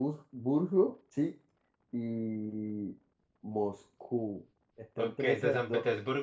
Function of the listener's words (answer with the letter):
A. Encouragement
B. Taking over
B